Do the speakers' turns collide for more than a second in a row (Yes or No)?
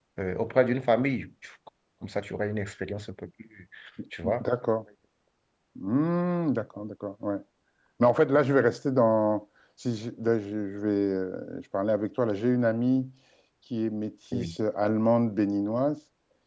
No